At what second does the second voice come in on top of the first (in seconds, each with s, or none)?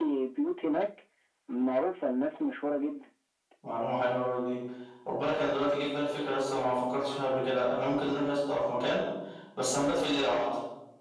none